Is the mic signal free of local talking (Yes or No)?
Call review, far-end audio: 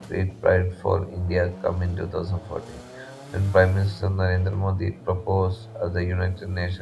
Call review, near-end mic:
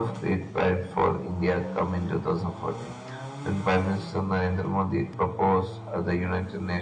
Yes